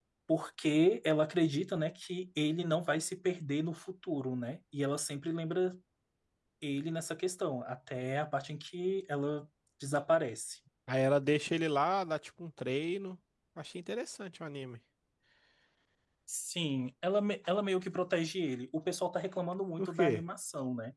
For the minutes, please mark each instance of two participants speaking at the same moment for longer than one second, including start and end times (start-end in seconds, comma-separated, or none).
none